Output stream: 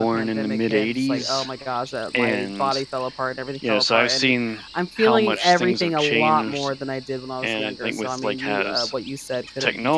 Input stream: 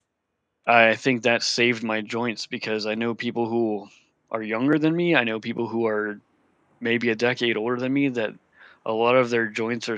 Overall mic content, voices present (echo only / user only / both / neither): user only